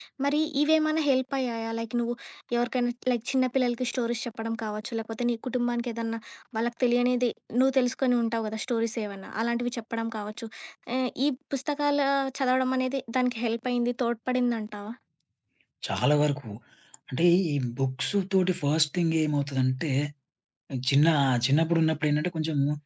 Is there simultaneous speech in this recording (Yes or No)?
No